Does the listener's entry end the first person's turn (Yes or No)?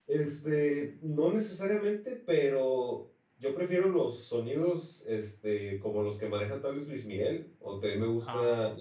No